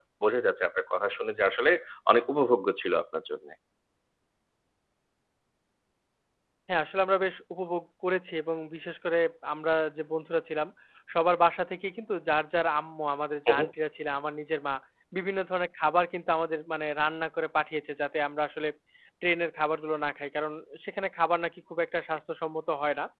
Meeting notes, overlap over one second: none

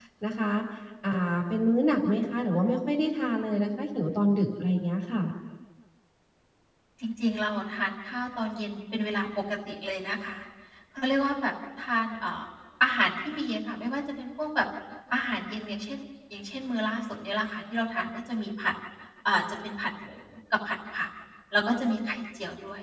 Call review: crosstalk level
none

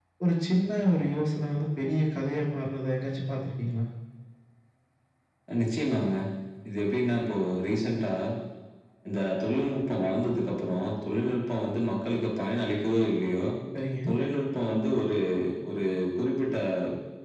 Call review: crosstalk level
none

